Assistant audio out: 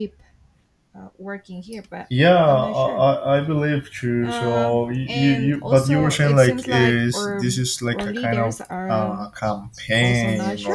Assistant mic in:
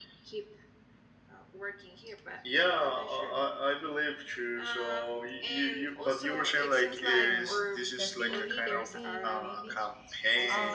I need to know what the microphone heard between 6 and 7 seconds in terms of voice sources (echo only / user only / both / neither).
echo only